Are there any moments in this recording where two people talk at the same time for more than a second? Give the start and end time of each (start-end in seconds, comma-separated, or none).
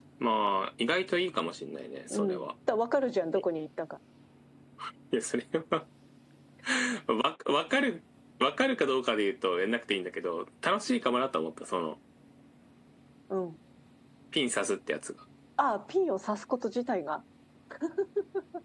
none